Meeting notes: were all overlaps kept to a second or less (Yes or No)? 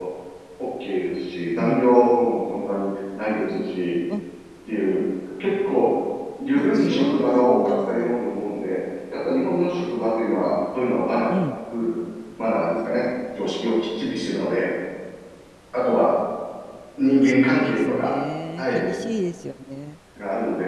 No